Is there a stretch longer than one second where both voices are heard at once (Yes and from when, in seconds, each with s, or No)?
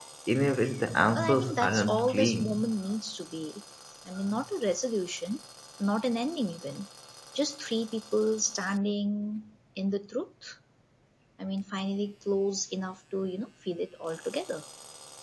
Yes, from 1.2 s